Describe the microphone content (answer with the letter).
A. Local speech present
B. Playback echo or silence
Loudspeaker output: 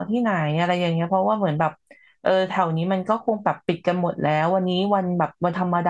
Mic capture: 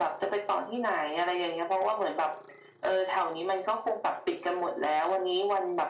B